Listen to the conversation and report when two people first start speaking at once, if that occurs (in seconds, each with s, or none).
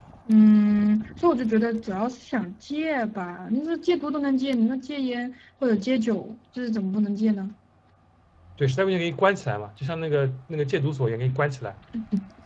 none